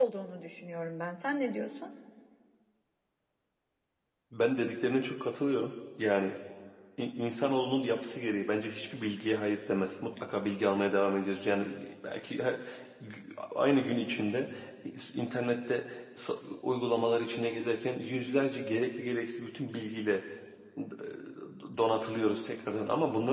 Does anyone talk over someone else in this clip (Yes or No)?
No